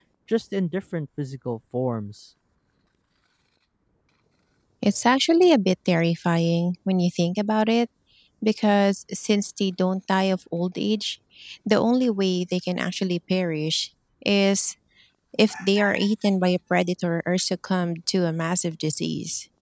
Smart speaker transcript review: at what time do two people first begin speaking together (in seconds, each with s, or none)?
none